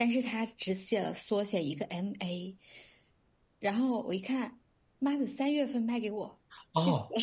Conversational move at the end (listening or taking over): taking over